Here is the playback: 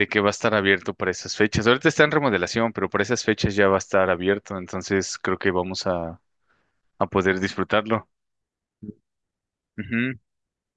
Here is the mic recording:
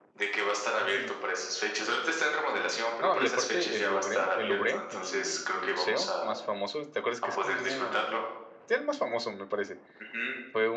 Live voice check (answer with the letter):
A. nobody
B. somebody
B